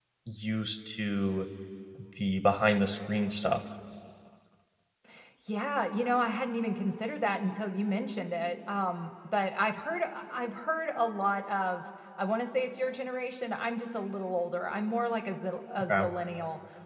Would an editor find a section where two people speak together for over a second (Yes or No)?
No